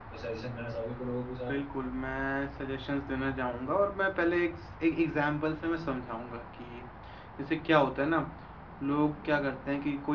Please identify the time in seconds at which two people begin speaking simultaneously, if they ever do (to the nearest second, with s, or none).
none